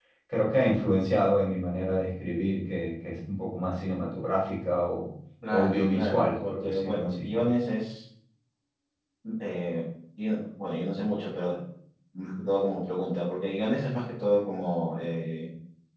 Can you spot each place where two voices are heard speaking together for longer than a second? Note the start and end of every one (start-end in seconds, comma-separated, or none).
5.5-7.4